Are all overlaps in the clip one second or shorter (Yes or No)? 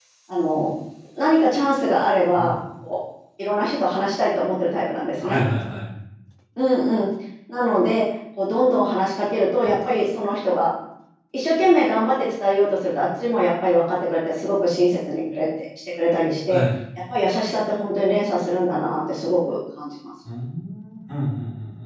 Yes